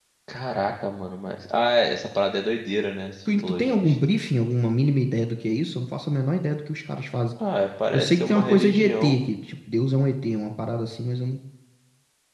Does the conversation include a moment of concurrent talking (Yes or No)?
Yes